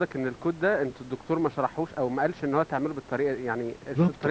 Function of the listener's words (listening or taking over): taking over